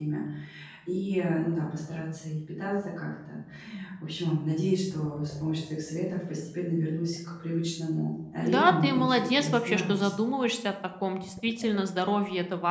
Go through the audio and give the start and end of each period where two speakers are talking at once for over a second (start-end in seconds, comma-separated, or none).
8.4-10.1